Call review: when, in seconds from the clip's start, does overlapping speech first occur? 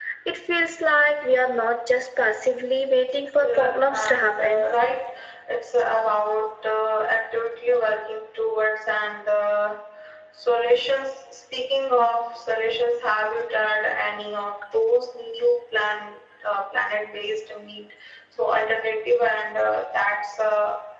3.3 s

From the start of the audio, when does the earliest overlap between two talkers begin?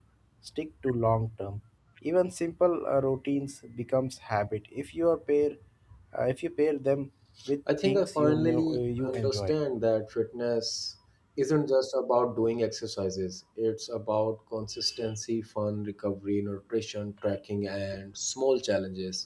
7.8 s

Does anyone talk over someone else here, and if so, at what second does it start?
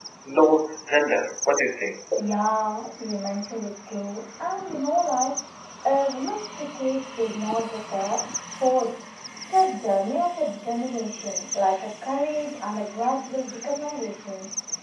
none

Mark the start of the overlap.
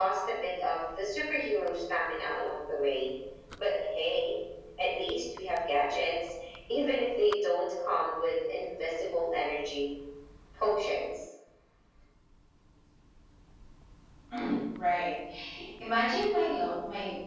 none

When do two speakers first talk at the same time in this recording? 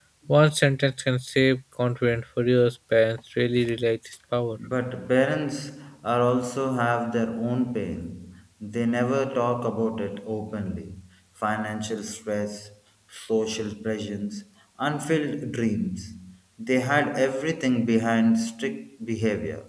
none

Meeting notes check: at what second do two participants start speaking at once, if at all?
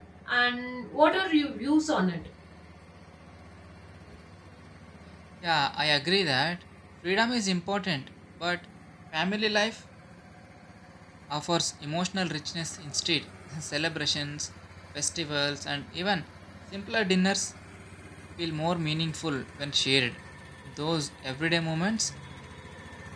none

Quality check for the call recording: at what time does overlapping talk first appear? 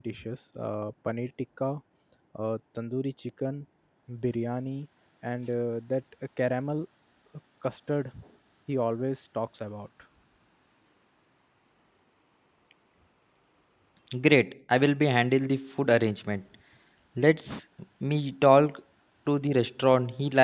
none

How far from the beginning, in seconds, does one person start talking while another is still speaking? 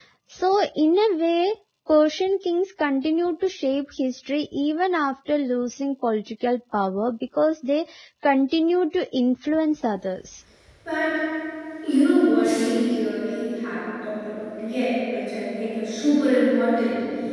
none

